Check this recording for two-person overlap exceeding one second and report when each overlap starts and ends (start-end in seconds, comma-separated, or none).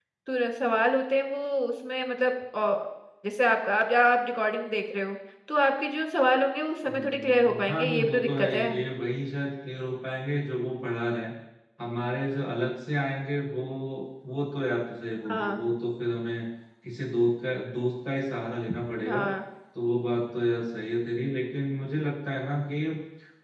6.8-8.7